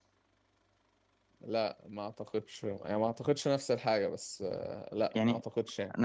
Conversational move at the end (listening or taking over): taking over